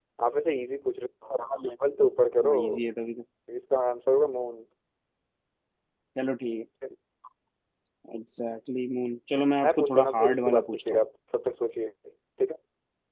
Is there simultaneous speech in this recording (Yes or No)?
Yes